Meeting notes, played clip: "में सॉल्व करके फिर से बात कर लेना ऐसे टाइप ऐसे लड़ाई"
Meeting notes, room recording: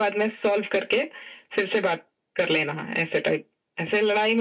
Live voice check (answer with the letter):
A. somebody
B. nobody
B